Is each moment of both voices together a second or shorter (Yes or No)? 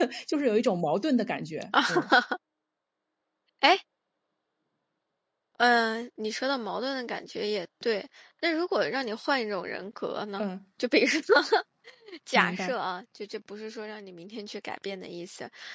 Yes